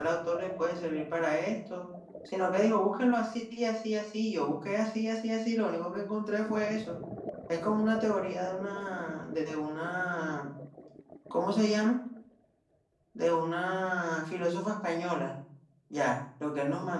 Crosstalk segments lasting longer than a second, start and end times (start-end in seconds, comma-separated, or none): none